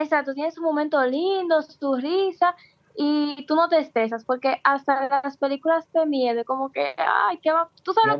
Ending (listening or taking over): taking over